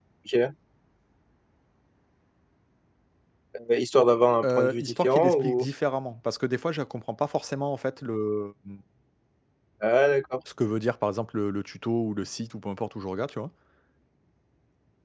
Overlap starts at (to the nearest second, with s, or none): 4 s